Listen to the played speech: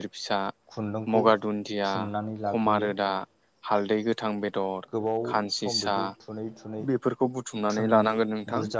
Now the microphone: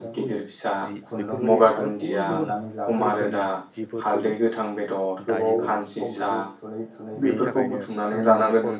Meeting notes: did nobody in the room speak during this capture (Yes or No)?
No